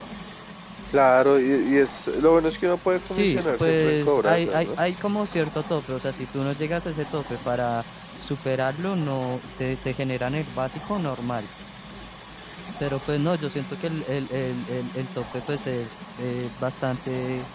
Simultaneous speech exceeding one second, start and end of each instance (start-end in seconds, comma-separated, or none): 3.1-4.8